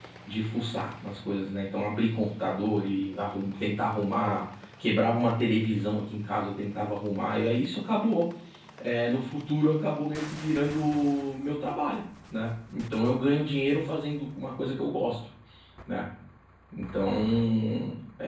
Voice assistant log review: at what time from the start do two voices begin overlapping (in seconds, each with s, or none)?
none